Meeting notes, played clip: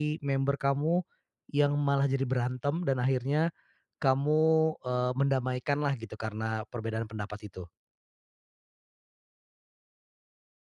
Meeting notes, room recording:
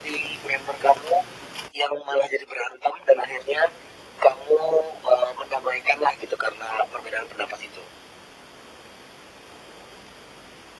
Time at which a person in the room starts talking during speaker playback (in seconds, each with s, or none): none